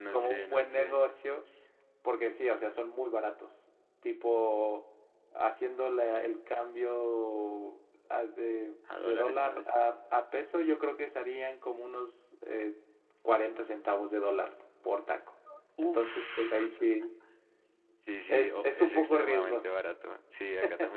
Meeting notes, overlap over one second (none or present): present